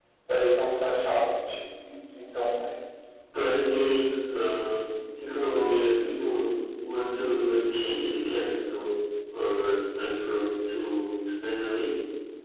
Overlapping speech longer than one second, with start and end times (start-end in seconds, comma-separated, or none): none